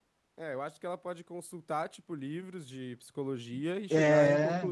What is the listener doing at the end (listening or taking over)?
listening